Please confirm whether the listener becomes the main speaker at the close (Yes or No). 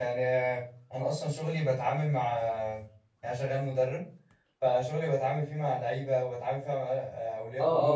No